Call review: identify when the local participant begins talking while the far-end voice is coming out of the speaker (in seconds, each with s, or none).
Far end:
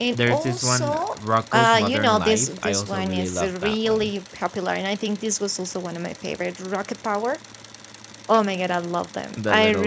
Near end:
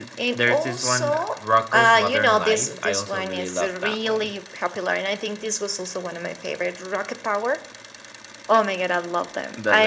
none